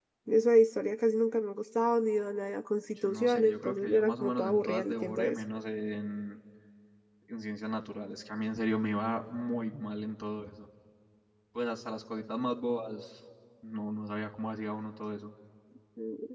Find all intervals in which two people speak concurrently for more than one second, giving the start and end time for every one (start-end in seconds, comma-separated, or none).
3.0-5.4